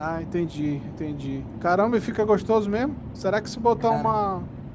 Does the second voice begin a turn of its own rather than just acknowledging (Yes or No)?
No